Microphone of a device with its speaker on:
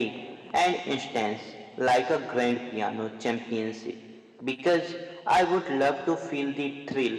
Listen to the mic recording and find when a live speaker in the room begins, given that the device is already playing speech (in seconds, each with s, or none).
none